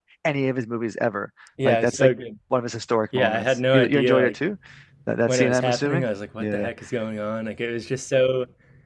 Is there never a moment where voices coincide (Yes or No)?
No